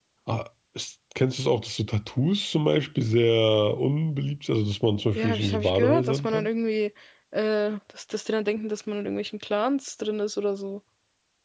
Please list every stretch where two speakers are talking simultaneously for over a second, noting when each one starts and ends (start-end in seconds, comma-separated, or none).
5.2-6.5